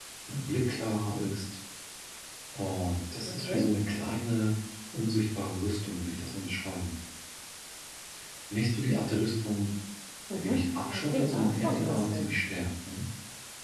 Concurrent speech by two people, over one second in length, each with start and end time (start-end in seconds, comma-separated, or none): 10.4-12.3